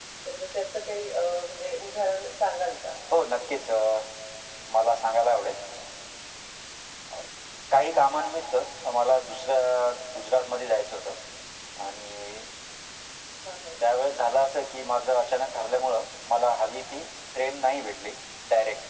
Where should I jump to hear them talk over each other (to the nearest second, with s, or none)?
none